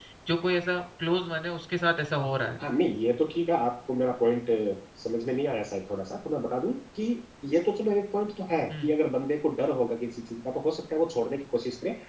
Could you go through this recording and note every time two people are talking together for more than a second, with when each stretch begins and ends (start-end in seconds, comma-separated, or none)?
none